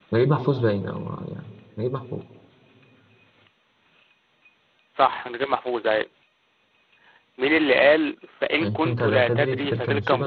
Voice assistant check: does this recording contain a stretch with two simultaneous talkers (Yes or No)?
Yes